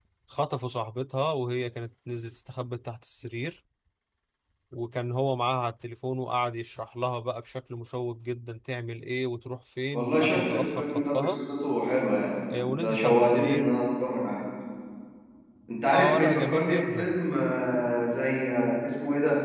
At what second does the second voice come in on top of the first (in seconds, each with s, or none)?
9.9 s